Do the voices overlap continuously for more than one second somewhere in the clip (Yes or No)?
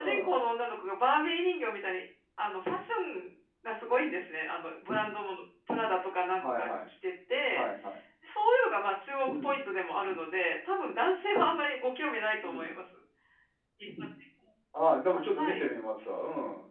No